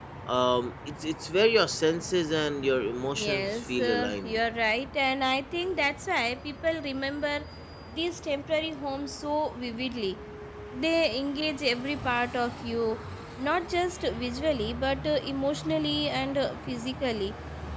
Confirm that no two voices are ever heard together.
No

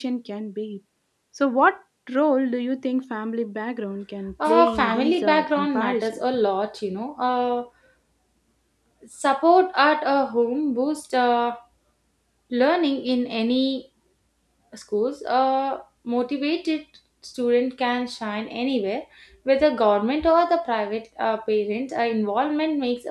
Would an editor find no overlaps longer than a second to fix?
No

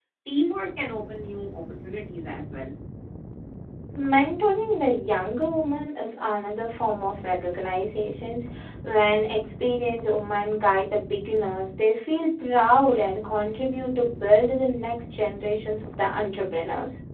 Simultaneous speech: No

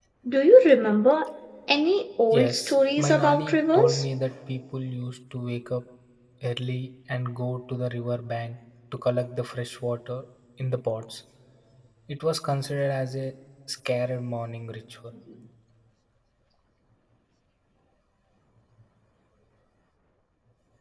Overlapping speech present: Yes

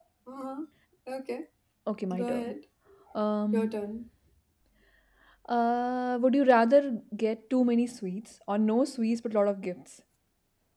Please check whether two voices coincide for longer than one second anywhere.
No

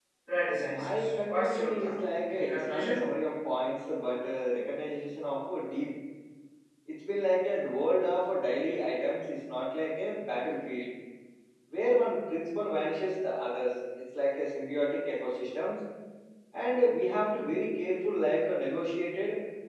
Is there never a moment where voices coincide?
No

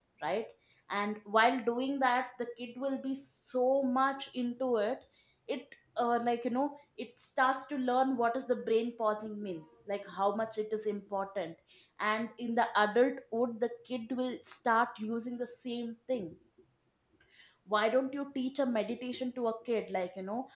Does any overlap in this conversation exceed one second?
No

